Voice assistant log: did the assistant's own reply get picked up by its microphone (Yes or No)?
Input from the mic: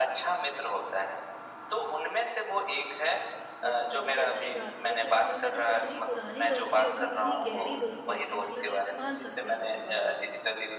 Yes